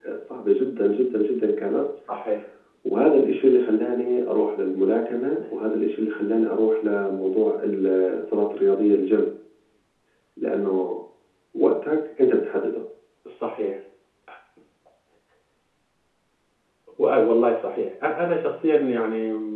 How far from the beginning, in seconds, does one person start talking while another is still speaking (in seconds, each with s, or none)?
none